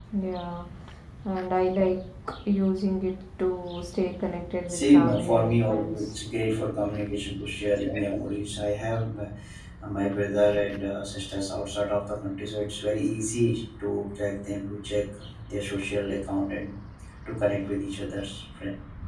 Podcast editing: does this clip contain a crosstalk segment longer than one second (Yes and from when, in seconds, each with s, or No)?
Yes, from 4.8 s